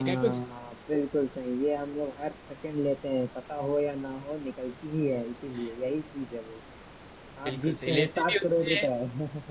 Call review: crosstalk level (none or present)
present